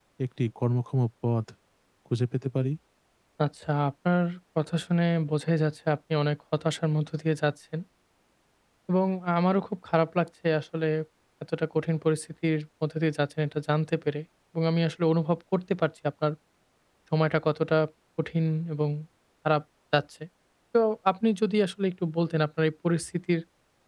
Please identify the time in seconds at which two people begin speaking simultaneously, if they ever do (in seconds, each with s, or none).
none